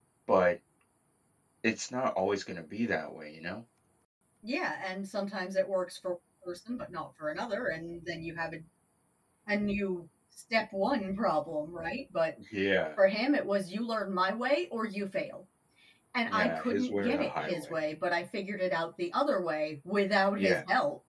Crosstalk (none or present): present